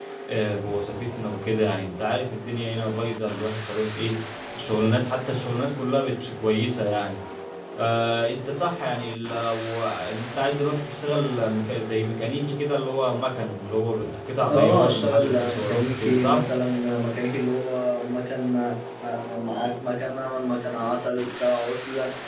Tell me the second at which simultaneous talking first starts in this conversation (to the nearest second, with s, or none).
14 s